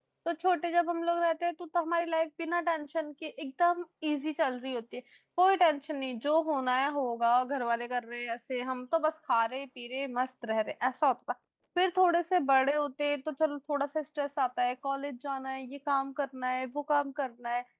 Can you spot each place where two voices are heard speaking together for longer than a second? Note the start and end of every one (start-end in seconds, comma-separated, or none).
none